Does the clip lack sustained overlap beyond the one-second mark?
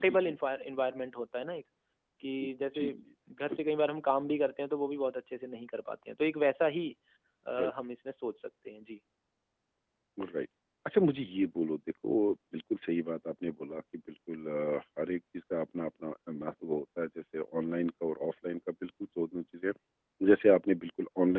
Yes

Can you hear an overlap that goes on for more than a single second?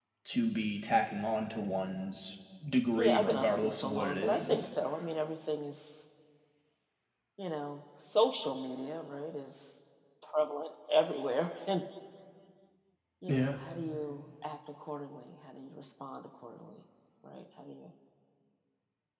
Yes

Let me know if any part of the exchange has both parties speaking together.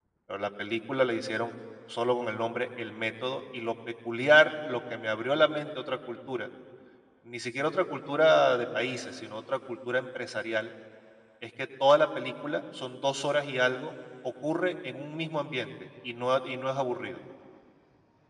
No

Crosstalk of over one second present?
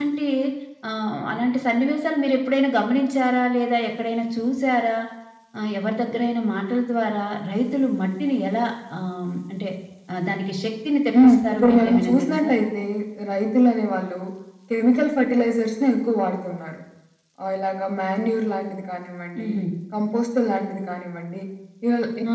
Yes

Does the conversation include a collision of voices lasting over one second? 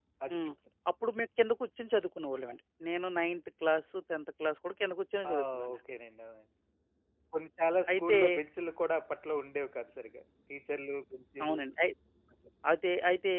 No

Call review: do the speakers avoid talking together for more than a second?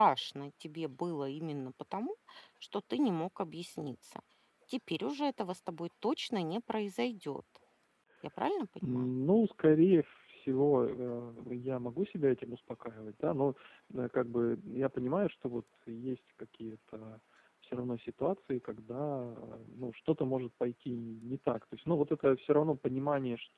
Yes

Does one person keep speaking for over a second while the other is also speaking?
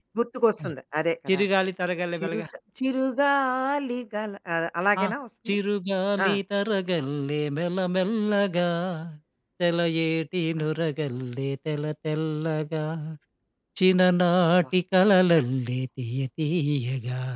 No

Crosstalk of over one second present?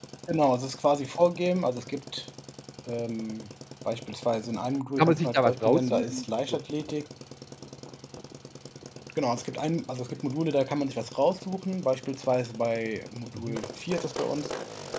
Yes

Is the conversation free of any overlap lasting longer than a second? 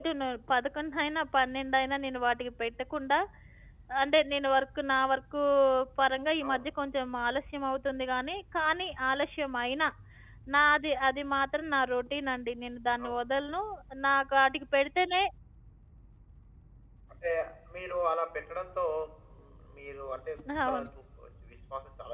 Yes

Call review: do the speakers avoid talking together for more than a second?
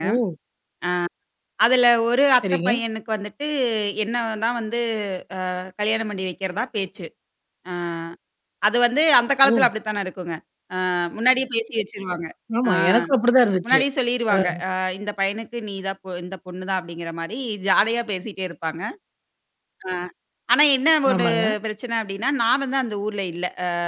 Yes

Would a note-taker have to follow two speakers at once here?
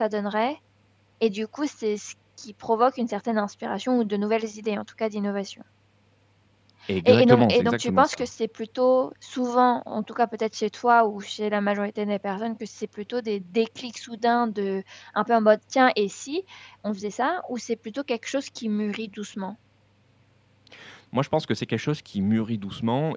Yes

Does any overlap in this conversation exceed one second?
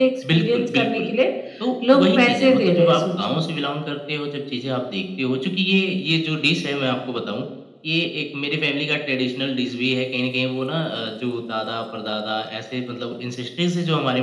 Yes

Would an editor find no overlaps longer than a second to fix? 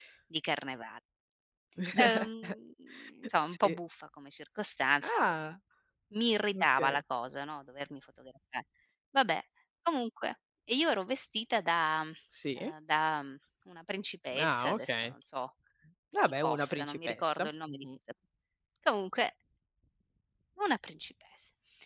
No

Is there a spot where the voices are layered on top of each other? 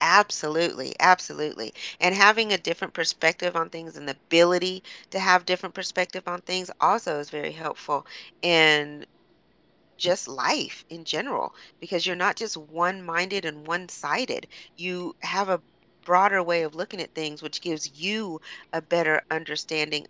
No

